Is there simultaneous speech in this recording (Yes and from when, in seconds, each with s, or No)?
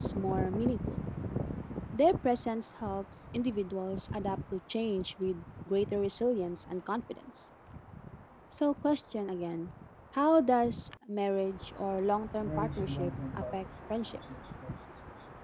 Yes, from 12.4 s